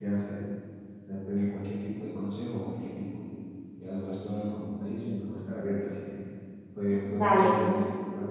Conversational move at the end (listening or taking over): listening